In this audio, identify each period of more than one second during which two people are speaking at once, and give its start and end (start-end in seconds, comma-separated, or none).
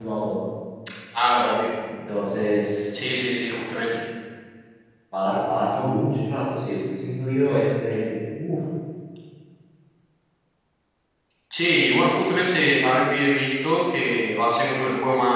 none